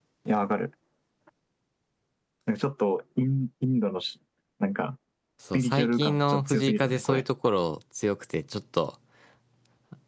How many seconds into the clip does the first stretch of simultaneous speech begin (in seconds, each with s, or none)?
5.5 s